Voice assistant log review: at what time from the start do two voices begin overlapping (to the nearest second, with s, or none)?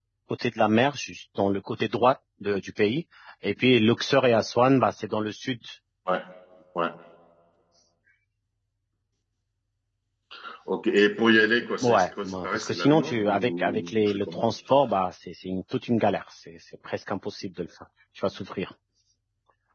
12 s